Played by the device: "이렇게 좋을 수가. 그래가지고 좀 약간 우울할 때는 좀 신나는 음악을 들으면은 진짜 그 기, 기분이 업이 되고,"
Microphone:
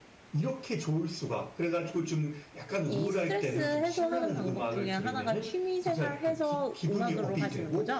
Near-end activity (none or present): present